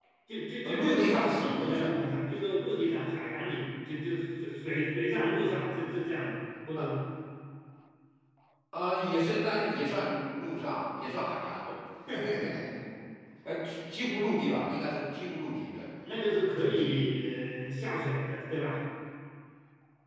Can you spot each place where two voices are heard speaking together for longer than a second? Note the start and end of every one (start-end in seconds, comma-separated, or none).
0.6-1.9